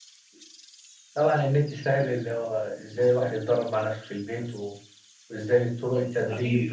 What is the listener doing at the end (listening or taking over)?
taking over